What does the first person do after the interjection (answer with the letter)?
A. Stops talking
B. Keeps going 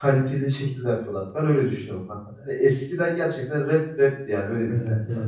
A